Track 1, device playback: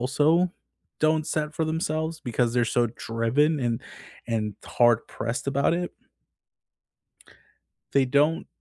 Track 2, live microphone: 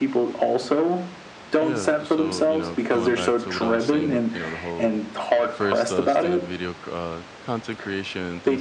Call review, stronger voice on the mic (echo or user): echo